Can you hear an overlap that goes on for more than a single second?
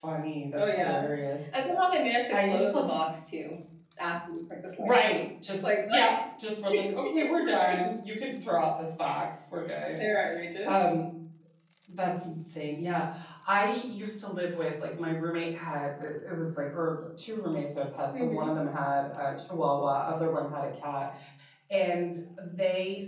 No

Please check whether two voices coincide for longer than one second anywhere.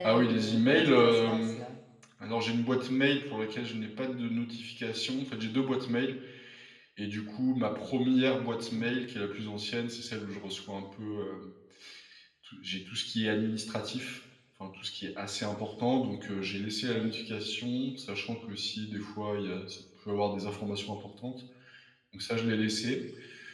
Yes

